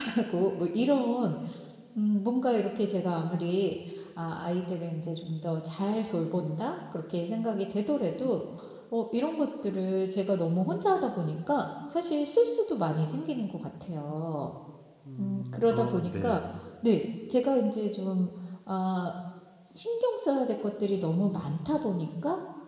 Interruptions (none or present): present